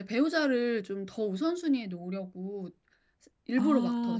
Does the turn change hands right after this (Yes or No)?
Yes